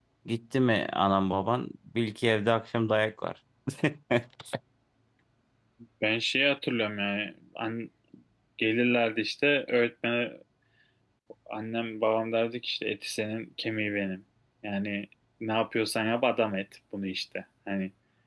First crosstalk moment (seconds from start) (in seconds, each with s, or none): none